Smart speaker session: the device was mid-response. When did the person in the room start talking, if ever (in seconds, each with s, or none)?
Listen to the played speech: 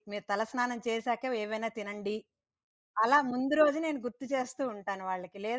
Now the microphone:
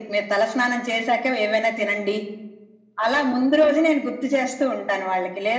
none